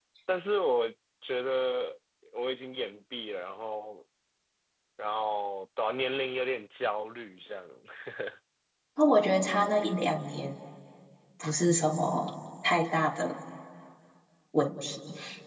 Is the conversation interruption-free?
Yes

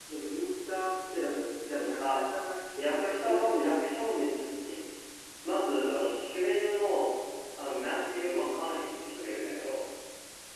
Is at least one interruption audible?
Yes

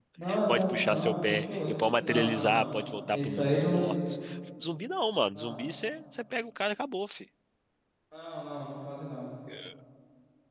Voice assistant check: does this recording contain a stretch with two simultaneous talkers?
Yes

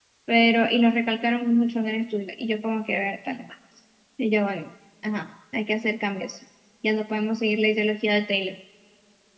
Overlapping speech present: No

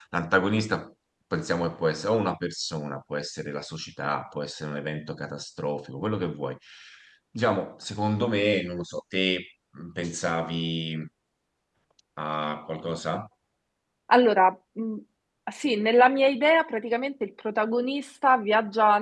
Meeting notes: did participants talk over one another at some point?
No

